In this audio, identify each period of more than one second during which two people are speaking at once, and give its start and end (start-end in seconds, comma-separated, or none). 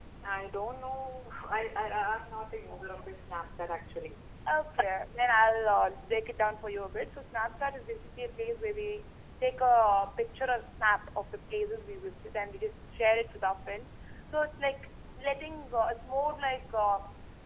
none